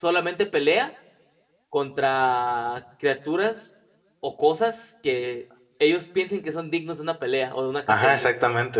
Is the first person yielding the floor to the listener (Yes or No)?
Yes